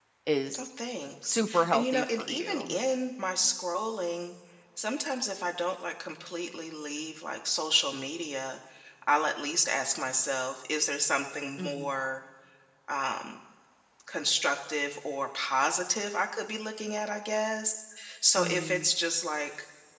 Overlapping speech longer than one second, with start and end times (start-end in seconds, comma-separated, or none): 1.2-2.8